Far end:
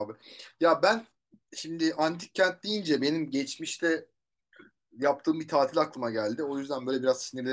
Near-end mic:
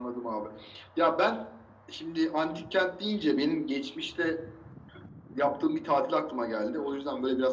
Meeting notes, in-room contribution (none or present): none